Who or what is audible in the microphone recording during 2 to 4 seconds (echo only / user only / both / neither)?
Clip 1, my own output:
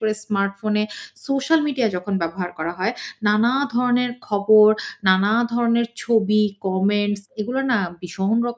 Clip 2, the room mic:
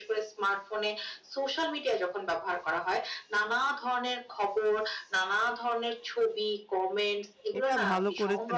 echo only